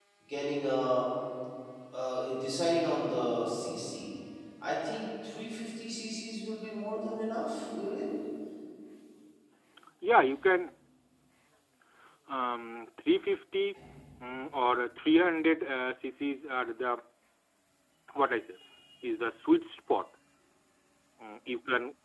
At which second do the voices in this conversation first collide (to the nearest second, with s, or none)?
none